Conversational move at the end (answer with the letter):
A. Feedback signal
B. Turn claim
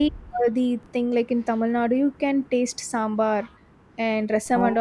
A